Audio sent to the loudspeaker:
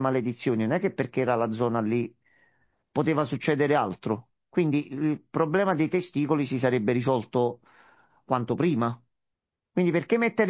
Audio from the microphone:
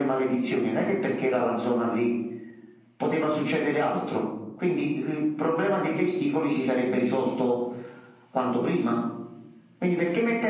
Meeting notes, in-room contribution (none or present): none